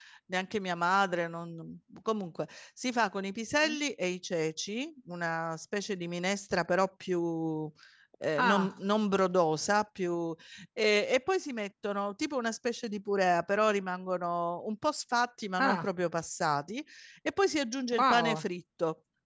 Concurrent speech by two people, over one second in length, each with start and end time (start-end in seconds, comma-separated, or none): none